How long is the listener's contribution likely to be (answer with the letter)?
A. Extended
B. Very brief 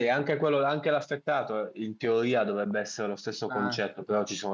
B